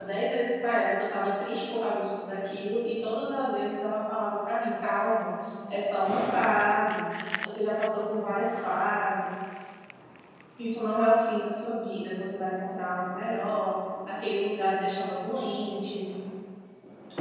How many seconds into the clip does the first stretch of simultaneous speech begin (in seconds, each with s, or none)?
none